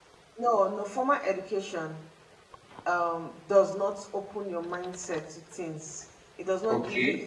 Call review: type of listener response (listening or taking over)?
listening